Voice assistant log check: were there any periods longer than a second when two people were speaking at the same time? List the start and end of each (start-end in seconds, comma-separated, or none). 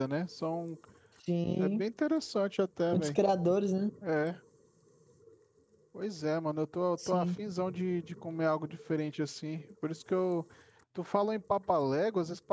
none